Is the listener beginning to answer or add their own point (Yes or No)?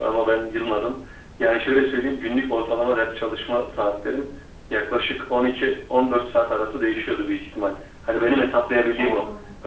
No